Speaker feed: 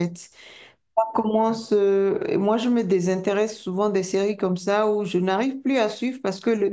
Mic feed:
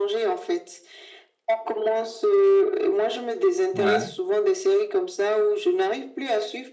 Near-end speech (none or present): present